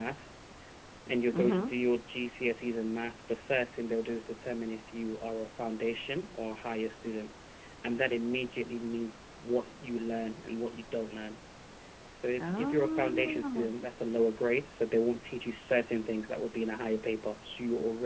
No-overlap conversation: No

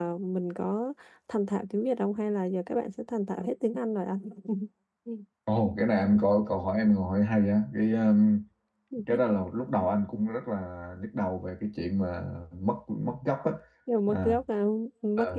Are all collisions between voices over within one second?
Yes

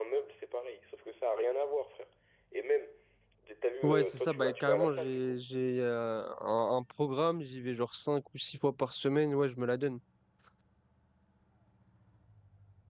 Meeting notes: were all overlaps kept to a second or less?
No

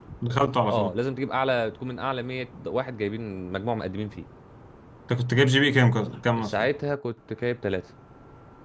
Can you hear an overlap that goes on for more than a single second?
No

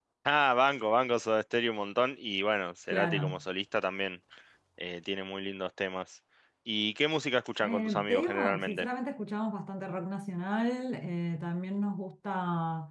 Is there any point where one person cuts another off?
Yes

